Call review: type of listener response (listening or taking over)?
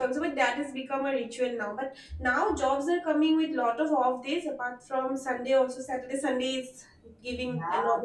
listening